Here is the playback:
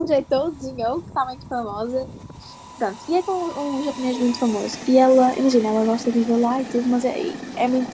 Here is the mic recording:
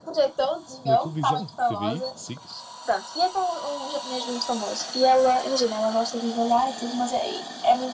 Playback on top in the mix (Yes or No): Yes